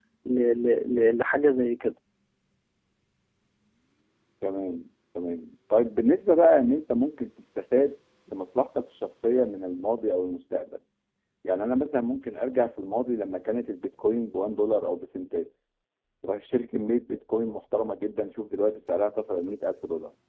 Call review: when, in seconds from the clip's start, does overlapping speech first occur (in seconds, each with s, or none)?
none